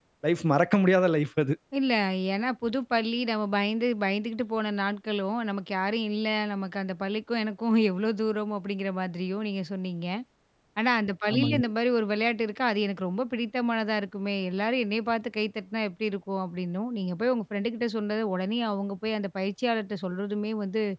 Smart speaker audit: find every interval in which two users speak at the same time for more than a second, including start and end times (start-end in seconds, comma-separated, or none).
none